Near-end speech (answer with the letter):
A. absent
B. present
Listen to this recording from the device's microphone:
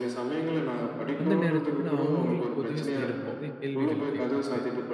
B